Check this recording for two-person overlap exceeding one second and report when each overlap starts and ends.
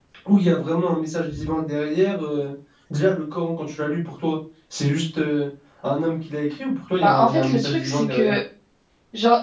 7.0-8.3

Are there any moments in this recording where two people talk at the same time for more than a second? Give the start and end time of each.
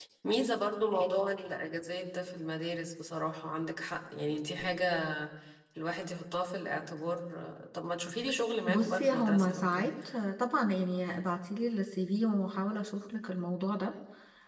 8.7-9.9

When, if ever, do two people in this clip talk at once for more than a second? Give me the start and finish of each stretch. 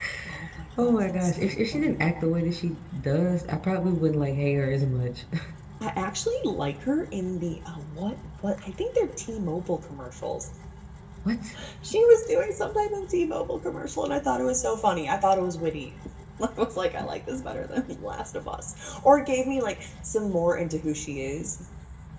0.8-2.1

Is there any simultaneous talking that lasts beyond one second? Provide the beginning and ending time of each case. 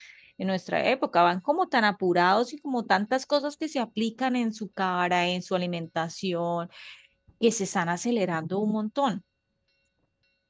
none

